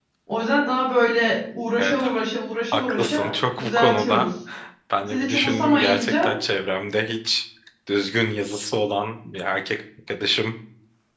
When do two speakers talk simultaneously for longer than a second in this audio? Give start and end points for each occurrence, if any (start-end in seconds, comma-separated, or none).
2.7-4.3, 5.1-6.3